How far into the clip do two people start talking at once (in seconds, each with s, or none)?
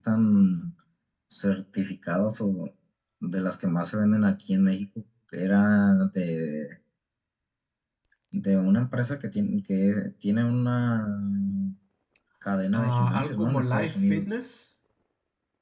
12.7 s